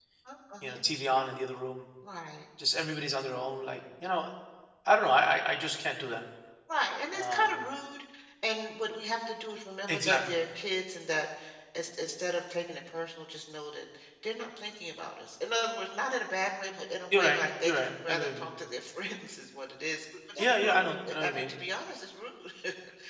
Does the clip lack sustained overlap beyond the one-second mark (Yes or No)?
No